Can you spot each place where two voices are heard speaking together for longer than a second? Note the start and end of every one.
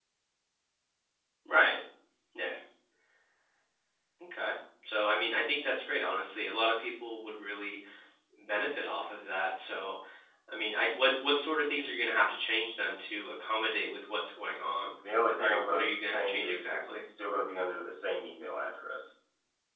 15.2-16.9

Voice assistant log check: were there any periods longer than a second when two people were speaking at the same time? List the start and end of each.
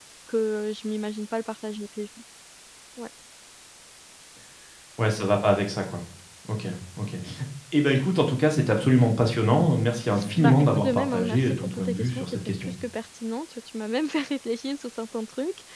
10.4-12.7

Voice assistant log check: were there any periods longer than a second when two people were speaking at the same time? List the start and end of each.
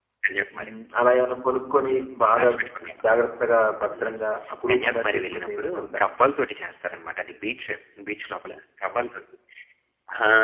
4.7-6.0

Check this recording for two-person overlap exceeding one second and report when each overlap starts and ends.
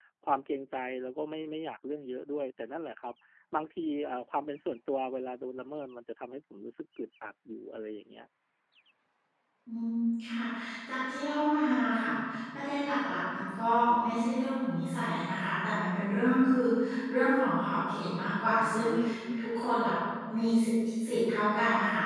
none

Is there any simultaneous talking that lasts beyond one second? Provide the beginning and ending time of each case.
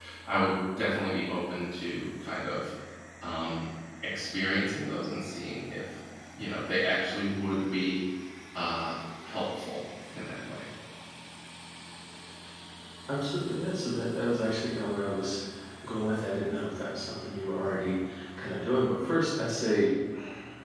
none

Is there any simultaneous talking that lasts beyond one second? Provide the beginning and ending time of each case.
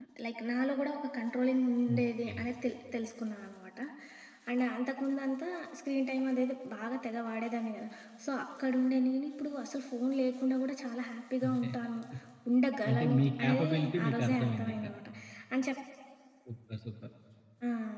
12.9-14.7

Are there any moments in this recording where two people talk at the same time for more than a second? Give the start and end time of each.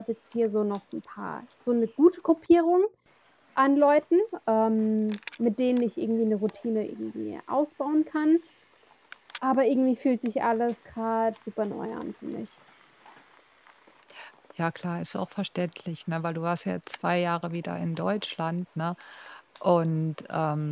none

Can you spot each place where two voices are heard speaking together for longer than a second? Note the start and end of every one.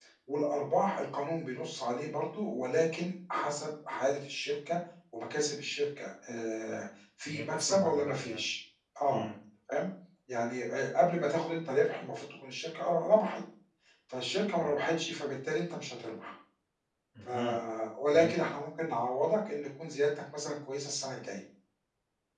7.3-8.5

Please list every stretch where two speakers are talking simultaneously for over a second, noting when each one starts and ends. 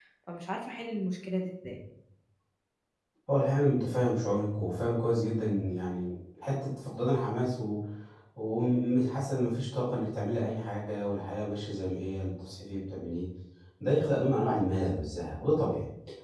none

